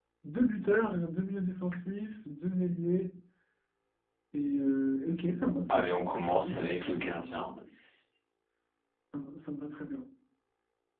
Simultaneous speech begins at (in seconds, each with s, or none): 5.7 s